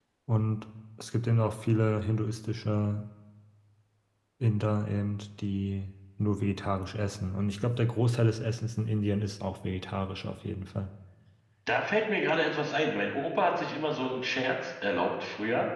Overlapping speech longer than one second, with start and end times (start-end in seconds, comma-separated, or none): none